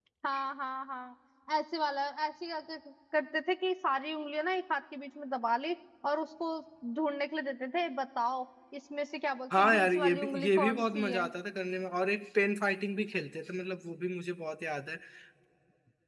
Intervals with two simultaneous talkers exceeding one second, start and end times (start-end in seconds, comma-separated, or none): 9.6-11.2